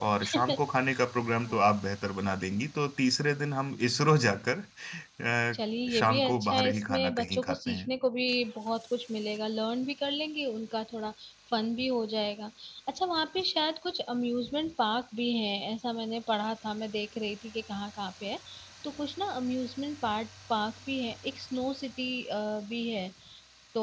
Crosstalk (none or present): present